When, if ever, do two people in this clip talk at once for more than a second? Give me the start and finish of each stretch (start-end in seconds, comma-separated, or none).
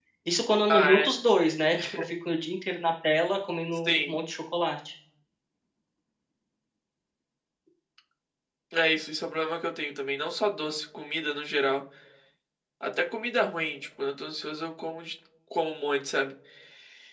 none